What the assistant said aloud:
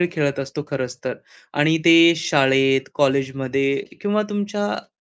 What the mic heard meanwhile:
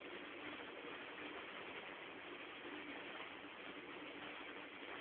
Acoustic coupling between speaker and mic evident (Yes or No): No